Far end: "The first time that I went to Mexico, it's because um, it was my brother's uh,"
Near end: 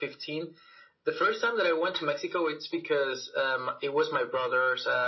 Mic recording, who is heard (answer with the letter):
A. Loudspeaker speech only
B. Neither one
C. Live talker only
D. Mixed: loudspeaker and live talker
A